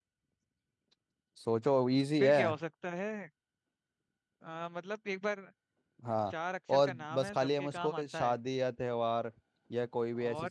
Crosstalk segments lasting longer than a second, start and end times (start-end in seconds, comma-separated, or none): 6.8-8.3